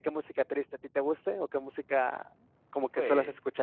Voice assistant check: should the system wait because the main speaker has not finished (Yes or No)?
No